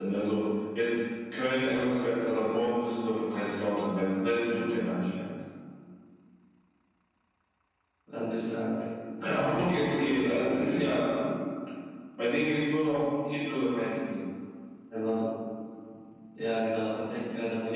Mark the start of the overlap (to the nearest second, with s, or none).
9 s